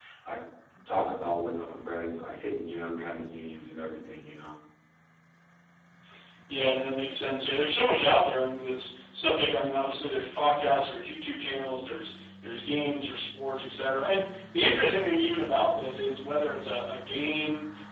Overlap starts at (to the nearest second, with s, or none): none